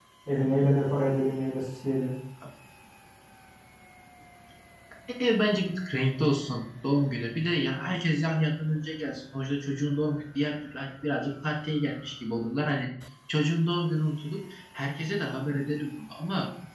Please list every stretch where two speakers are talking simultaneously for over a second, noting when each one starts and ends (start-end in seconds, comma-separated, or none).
none